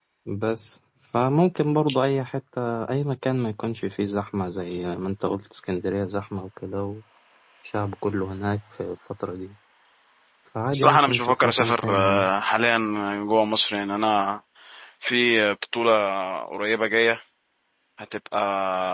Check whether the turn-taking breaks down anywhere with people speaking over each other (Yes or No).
Yes